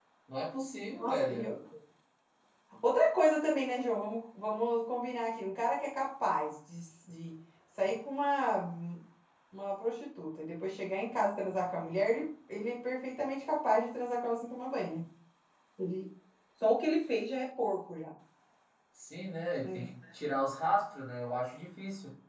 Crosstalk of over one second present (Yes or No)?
No